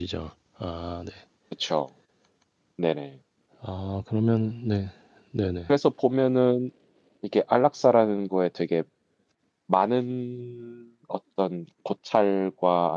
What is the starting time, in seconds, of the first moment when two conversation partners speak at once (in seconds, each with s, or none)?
none